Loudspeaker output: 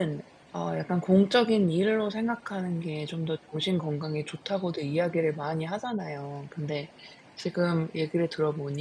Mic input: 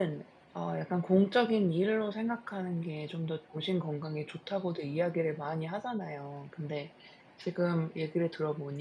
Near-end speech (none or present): none